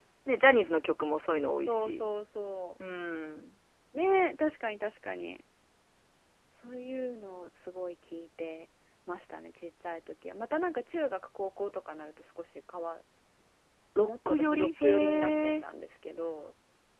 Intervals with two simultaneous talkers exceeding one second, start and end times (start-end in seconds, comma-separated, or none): 14.0-15.6